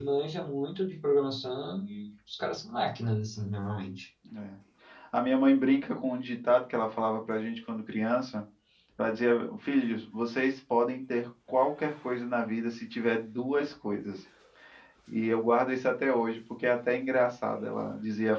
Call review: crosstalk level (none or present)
none